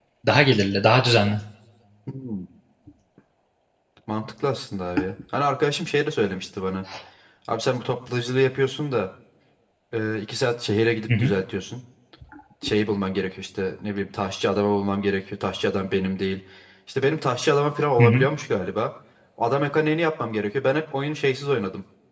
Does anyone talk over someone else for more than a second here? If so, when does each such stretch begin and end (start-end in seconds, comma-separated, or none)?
none